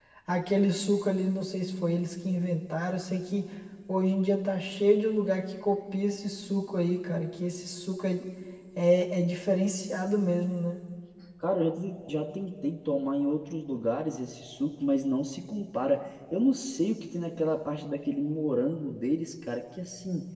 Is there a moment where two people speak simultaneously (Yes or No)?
No